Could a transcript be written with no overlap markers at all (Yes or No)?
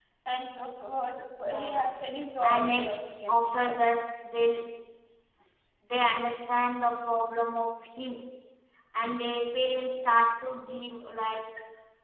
No